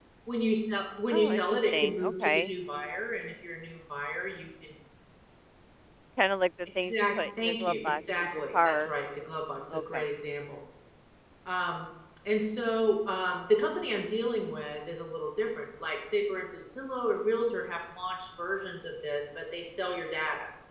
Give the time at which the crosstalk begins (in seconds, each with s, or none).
1.1 s